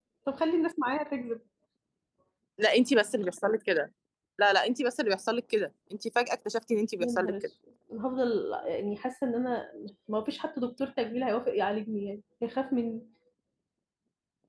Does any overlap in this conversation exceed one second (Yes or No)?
No